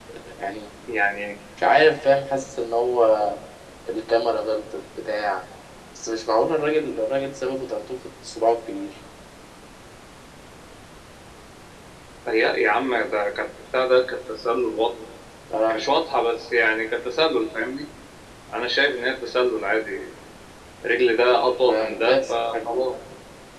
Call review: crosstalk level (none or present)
present